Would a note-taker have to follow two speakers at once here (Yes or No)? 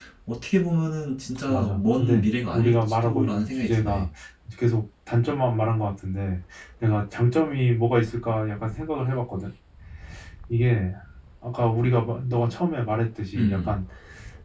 Yes